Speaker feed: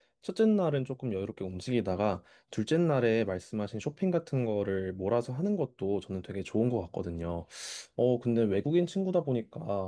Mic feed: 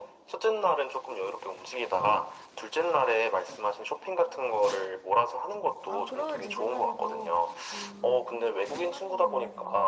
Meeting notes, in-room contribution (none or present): present